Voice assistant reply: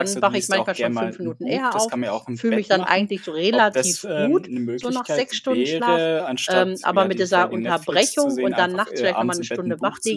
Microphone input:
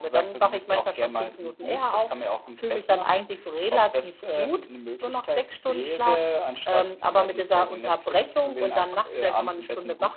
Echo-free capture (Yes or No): No